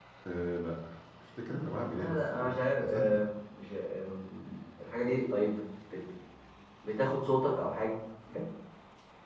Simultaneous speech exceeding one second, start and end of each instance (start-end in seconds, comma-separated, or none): 2.0-3.2